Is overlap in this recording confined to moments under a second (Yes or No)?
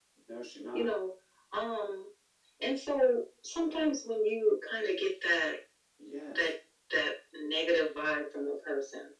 Yes